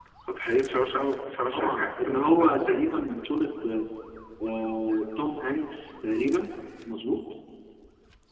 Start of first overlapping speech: 1.5 s

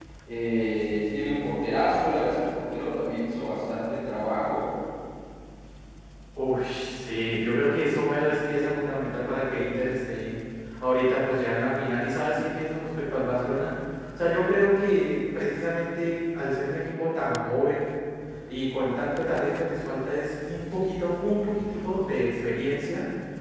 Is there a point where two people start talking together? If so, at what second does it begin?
none

